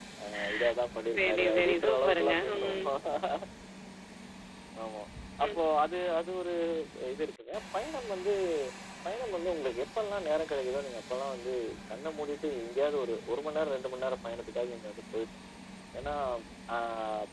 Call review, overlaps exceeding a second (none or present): present